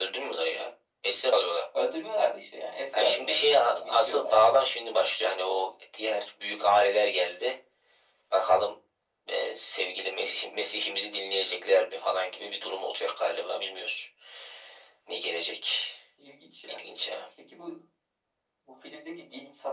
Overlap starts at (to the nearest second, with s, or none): 3 s